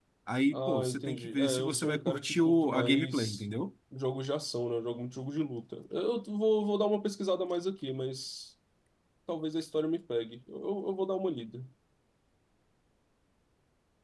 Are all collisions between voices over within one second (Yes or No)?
No